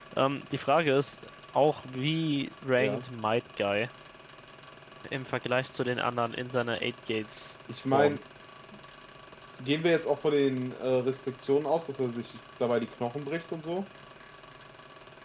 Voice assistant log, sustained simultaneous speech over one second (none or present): none